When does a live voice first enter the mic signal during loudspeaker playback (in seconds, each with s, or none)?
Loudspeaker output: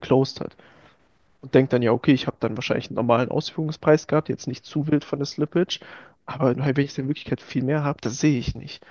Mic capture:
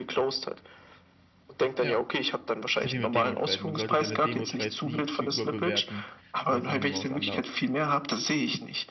1.8 s